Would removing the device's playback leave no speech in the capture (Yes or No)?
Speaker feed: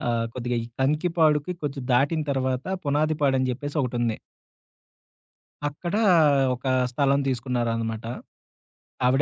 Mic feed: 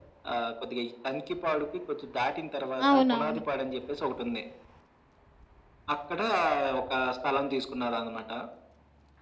No